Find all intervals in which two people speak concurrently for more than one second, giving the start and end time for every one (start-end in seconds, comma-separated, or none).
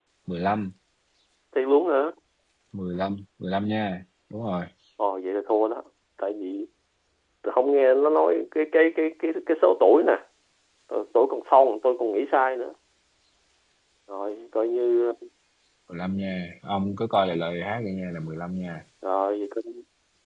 none